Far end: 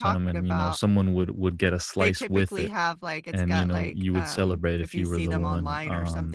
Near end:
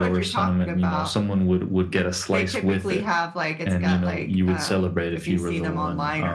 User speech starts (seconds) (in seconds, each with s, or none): none